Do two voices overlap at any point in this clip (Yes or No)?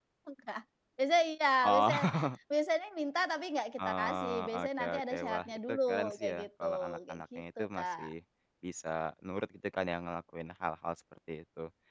Yes